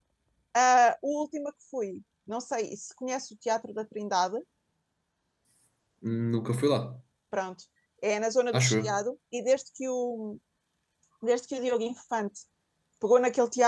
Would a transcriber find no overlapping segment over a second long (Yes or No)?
Yes